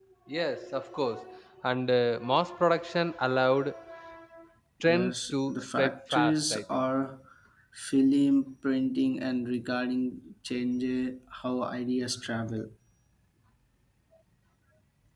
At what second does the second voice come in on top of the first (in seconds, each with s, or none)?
4.9 s